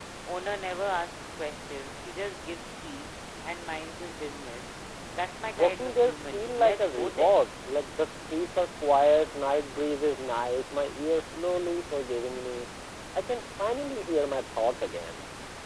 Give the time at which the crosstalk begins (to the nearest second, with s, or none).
6 s